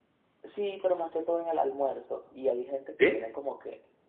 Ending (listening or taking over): listening